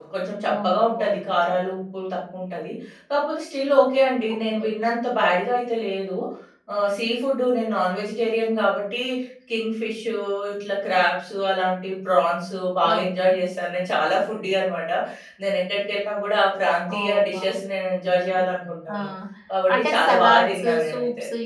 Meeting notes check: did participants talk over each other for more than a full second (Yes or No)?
Yes